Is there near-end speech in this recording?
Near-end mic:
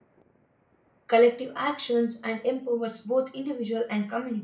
Yes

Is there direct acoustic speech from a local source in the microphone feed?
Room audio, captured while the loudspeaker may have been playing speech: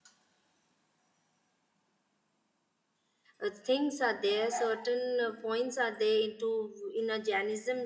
Yes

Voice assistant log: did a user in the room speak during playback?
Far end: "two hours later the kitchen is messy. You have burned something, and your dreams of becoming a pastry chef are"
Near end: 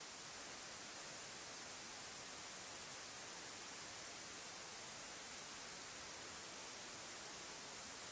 No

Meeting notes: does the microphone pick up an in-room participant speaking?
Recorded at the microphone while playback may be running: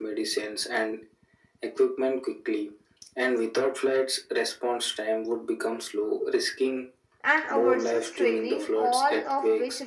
Yes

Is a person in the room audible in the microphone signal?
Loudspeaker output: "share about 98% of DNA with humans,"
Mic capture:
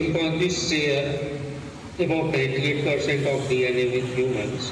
No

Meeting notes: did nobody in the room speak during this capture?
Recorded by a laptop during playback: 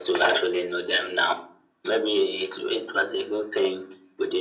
Yes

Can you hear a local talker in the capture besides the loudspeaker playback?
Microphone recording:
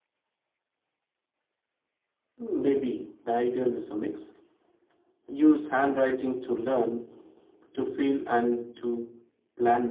No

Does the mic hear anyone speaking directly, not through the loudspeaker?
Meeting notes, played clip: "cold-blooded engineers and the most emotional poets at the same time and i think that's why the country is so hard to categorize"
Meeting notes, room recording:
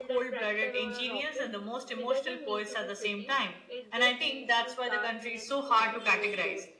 Yes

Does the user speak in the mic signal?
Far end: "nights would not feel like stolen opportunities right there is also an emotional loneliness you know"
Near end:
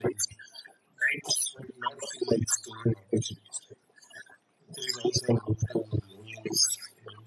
No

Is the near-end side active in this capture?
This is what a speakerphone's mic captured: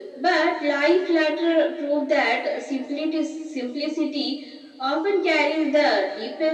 No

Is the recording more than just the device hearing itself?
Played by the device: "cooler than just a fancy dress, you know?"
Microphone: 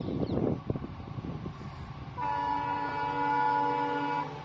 No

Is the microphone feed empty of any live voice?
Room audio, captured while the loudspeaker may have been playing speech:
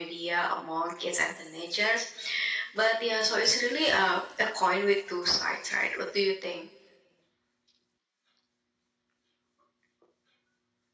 Yes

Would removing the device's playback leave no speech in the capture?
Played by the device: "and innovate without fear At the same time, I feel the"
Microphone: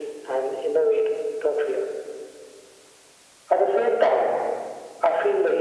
Yes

